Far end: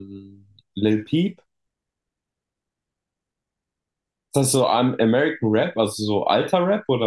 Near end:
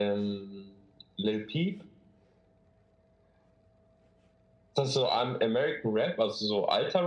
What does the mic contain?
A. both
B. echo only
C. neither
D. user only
B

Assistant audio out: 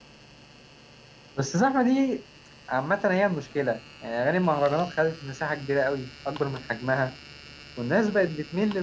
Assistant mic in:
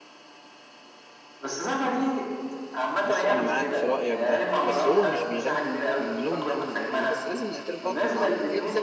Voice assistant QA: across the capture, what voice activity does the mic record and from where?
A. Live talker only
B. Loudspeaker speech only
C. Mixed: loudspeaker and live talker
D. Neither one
C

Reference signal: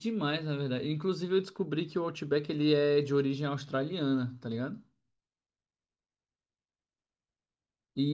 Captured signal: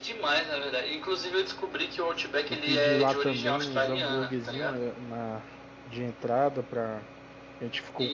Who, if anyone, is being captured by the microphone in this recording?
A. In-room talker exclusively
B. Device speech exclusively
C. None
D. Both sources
D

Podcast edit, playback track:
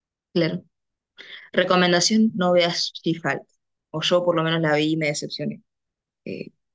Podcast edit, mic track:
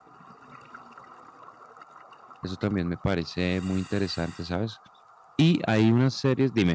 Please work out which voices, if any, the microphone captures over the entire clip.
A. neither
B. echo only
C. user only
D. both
C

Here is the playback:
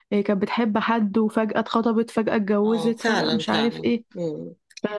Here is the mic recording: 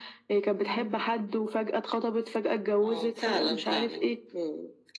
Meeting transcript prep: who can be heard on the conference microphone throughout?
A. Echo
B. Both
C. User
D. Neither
B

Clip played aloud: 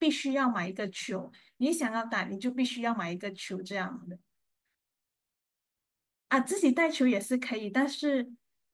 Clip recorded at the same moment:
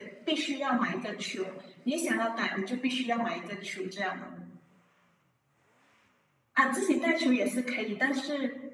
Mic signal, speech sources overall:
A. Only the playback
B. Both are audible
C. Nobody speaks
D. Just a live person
A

